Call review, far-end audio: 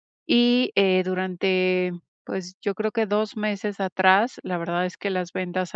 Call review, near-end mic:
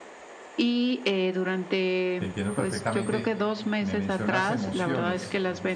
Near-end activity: present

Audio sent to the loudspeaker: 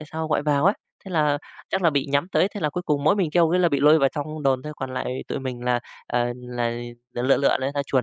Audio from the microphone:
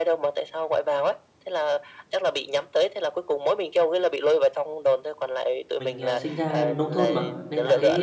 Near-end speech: present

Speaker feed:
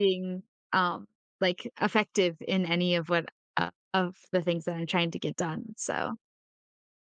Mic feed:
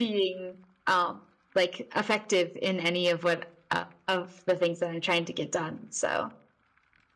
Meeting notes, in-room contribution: none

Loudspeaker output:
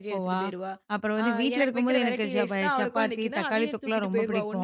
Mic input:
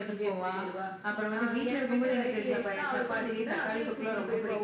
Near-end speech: none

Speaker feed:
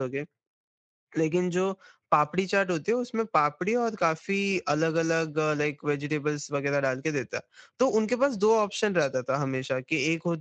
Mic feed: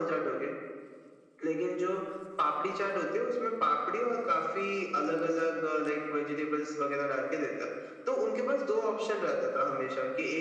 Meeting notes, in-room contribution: none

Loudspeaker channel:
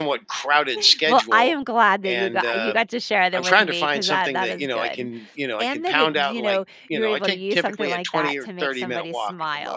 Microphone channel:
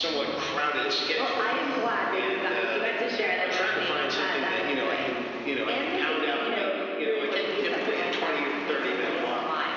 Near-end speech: none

